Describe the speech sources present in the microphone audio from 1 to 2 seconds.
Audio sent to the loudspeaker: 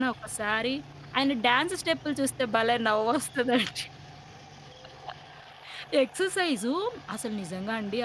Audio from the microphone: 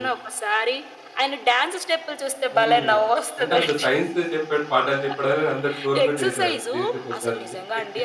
echo only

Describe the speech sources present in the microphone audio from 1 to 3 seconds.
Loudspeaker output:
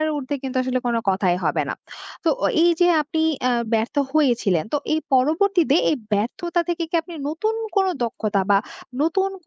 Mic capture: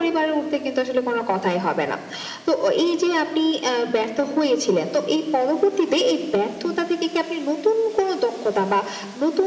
echo only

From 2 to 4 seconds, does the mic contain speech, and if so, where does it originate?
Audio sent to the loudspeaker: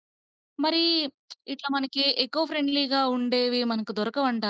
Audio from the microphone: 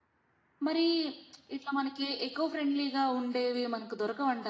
echo only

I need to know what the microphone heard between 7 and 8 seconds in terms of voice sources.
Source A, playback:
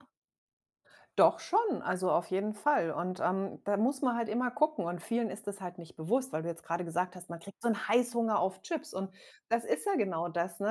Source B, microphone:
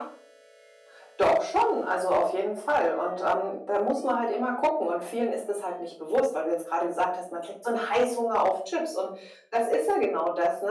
echo only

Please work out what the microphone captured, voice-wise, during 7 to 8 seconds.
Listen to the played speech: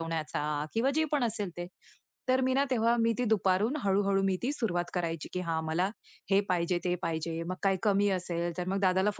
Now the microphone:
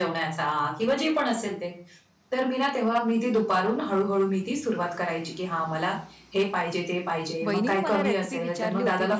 both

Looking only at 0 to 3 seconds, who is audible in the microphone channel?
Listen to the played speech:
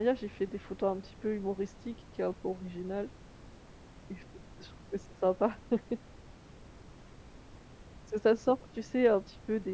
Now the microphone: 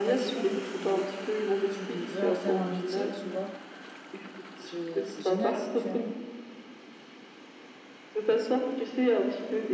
both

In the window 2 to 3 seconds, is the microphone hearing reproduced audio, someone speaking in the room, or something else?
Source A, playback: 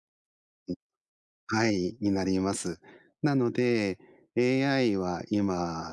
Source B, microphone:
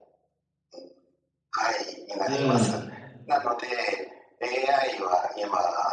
both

